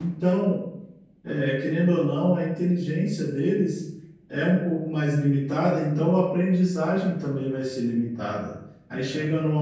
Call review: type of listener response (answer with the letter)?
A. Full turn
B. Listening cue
B